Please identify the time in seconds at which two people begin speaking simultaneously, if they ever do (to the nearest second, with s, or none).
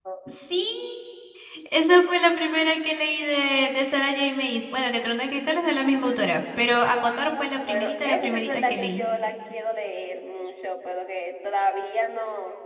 8 s